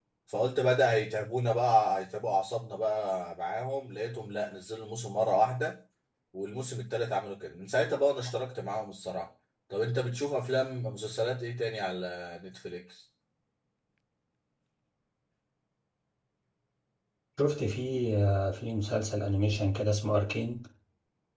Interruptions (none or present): none